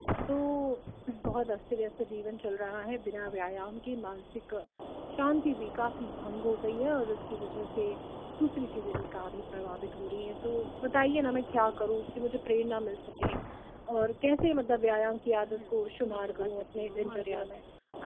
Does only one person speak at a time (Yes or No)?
No